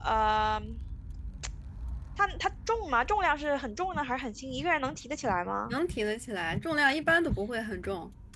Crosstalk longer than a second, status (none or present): none